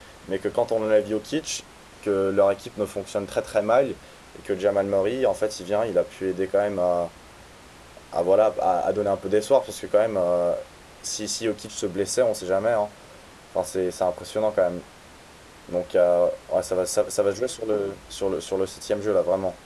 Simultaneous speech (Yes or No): No